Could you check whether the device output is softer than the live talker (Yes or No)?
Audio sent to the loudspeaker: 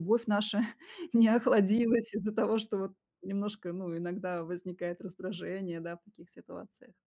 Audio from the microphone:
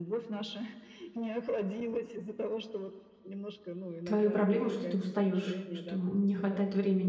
Yes